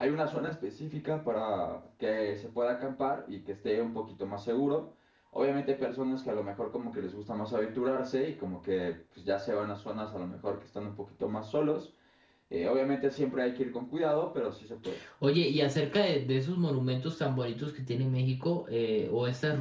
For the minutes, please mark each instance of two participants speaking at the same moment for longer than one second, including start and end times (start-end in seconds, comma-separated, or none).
none